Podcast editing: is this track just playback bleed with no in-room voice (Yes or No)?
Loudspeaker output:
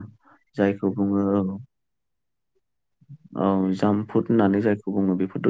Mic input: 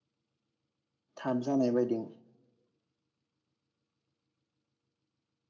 No